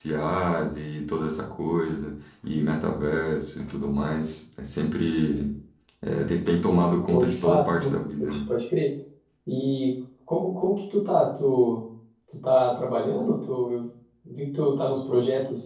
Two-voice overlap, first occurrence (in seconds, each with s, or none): 7.1 s